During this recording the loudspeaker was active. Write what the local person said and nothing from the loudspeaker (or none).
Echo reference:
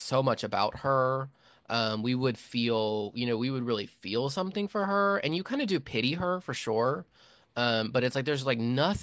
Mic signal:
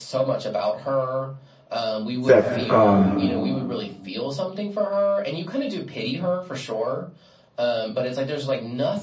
that um